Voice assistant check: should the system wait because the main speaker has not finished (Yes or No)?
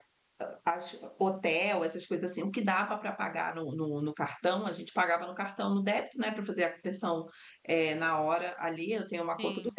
Yes